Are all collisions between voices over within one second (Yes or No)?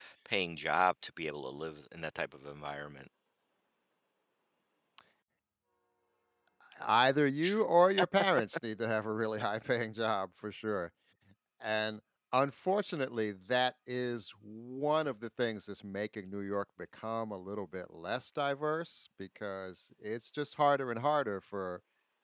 Yes